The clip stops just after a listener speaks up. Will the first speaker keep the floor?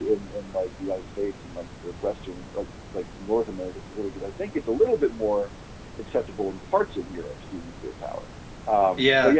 Yes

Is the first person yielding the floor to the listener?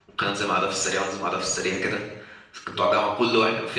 No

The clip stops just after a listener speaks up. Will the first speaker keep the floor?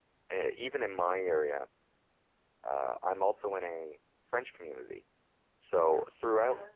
Yes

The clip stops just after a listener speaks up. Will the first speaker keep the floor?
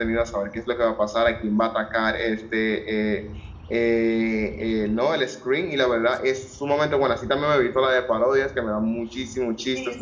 No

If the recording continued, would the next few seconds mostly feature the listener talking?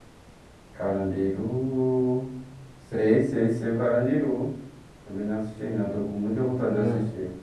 Yes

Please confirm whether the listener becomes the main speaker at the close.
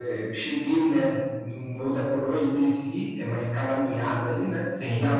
No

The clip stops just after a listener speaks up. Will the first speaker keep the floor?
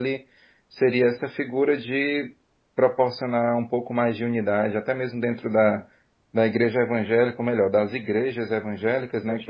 Yes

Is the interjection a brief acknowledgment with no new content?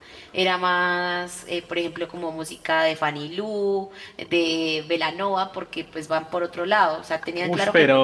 Yes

